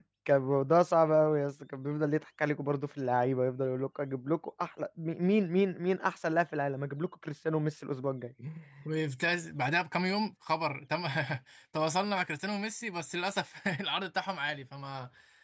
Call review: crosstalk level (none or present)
none